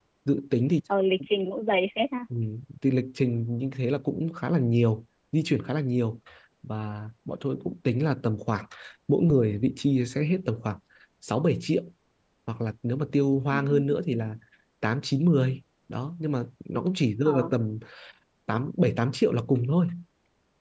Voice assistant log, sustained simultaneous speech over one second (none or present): none